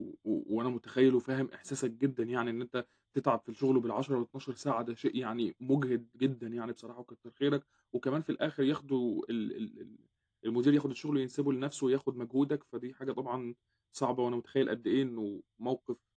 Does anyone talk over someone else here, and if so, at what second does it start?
none

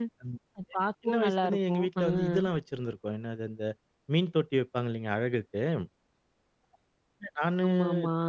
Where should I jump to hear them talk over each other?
1.1 s

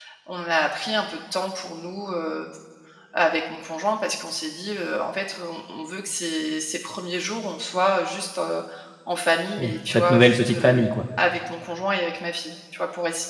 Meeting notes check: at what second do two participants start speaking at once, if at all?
9.6 s

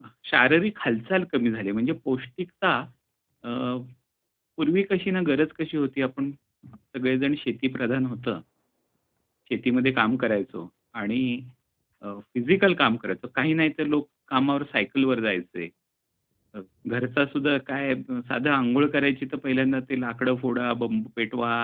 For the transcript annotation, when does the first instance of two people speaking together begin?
none

